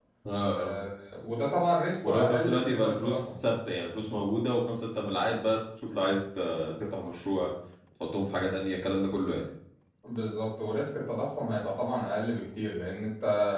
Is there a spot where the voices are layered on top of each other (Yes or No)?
Yes